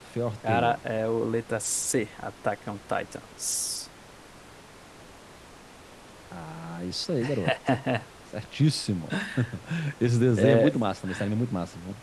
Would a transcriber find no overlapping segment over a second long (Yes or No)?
Yes